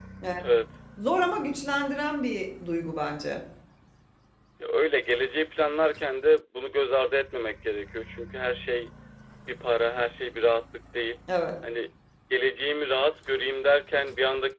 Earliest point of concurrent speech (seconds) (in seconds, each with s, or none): none